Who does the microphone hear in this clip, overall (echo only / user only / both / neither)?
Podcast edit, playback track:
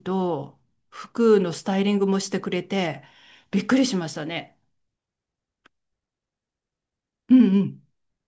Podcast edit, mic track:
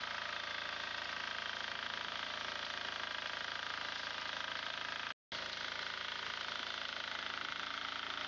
neither